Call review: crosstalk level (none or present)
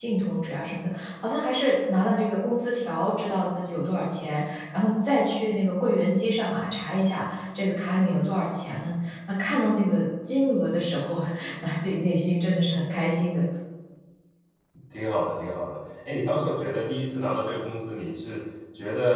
none